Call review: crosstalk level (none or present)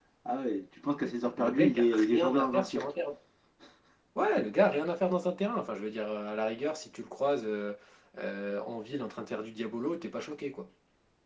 present